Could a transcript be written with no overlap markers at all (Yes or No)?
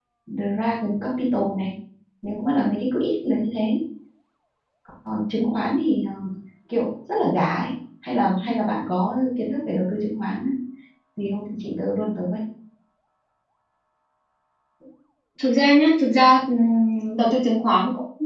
Yes